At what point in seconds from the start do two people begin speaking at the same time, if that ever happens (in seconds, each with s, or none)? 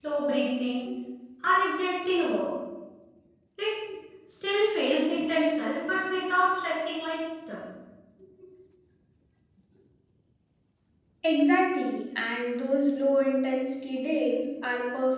none